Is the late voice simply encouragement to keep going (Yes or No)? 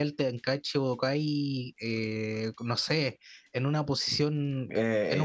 No